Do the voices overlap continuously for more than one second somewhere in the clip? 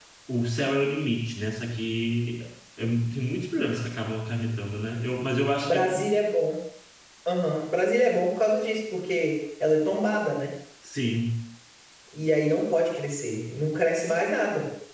No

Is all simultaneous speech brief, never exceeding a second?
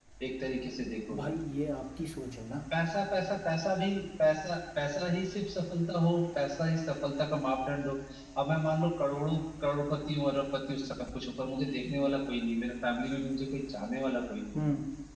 Yes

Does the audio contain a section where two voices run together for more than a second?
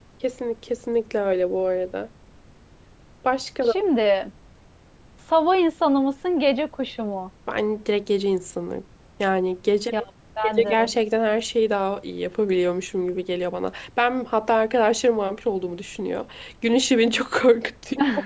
No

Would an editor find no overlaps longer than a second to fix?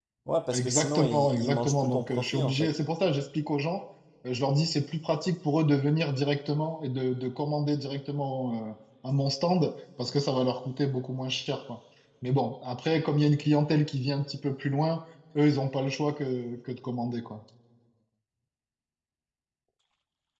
No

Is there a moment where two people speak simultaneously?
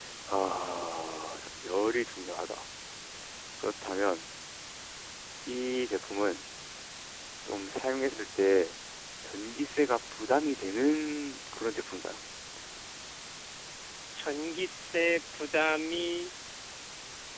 No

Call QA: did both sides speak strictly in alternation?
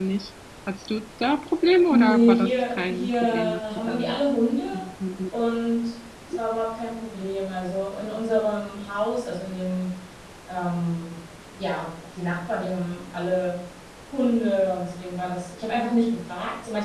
No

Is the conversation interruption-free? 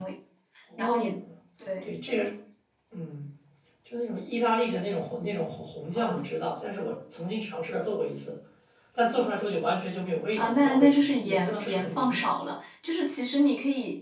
No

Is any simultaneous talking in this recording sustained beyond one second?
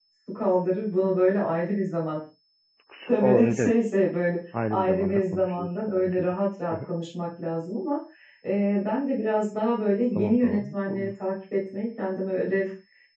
Yes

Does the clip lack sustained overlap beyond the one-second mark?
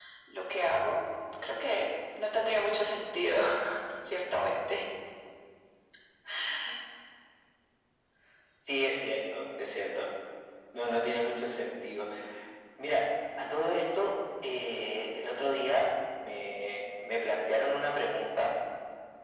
Yes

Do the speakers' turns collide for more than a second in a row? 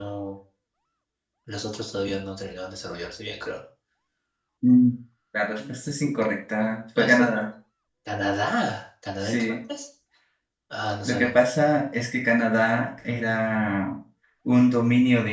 No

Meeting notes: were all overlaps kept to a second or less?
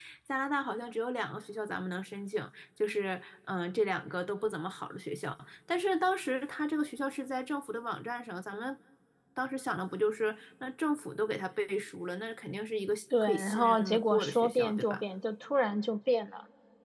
No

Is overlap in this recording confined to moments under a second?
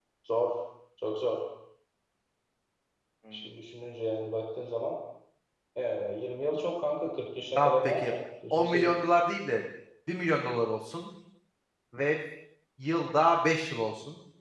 Yes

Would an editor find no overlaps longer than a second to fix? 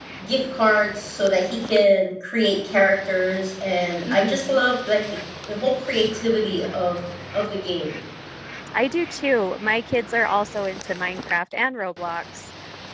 Yes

